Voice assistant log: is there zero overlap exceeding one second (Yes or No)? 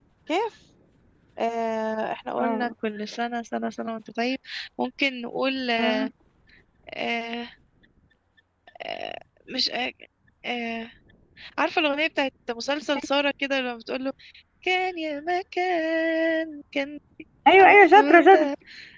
Yes